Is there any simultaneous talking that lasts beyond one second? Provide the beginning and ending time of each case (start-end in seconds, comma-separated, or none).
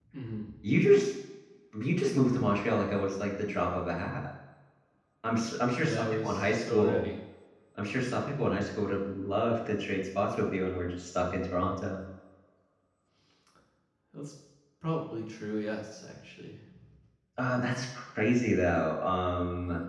5.8-7.1